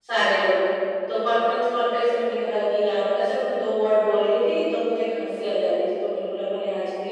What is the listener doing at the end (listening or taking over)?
listening